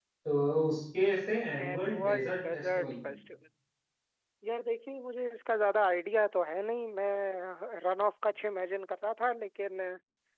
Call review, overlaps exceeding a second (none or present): present